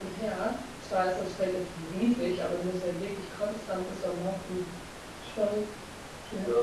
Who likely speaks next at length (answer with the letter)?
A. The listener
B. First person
A